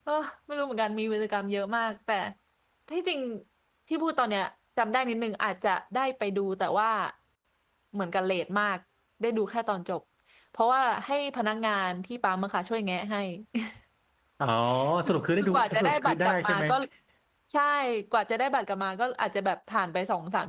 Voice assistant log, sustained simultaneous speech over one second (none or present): present